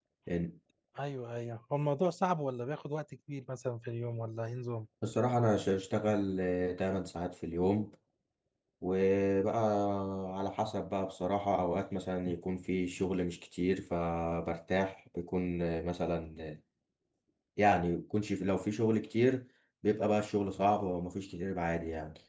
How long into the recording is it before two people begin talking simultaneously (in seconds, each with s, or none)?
none